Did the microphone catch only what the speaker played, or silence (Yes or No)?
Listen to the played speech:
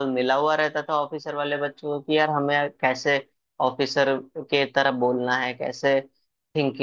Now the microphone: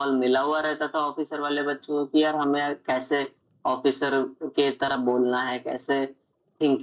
Yes